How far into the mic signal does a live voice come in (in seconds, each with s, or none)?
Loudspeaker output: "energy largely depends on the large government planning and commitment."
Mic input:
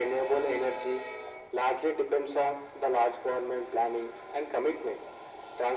none